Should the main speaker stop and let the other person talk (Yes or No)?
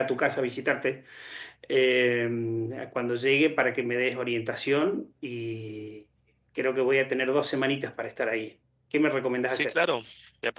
Yes